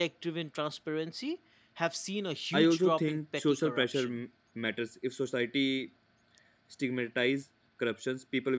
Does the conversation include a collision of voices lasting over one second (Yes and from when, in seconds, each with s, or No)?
Yes, from 2.5 s